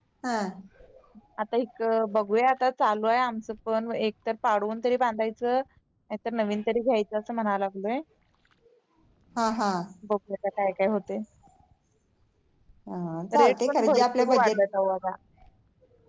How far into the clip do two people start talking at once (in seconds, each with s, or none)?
13.4 s